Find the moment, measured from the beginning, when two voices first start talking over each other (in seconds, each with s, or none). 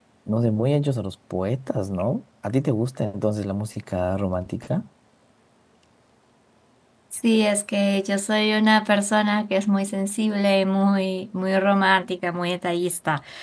none